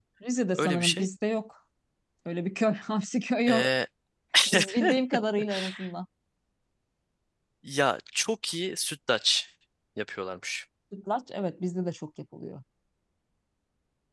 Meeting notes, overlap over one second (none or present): none